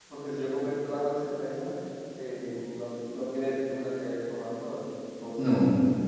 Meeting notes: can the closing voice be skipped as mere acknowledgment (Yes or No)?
Yes